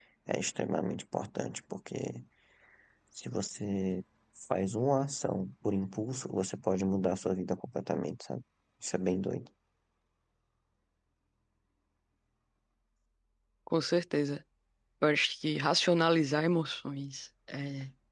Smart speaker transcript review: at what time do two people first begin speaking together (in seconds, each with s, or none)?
none